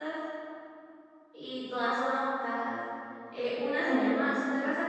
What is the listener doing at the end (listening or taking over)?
listening